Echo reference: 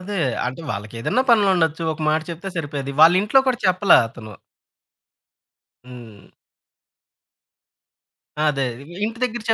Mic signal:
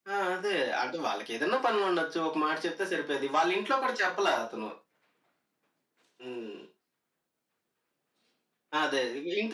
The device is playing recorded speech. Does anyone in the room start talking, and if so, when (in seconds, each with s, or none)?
none